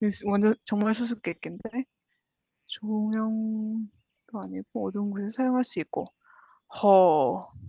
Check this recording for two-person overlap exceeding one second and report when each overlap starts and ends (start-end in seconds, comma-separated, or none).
none